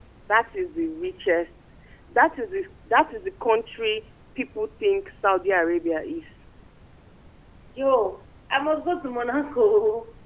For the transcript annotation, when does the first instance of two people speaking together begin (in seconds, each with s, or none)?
none